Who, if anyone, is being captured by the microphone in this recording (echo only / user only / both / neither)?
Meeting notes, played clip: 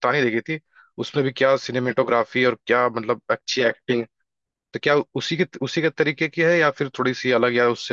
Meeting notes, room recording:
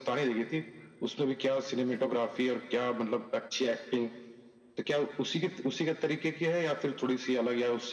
echo only